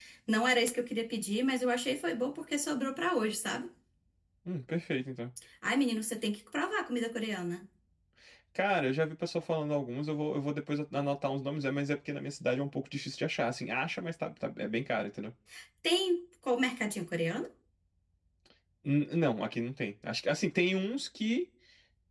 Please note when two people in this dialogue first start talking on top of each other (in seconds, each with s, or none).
none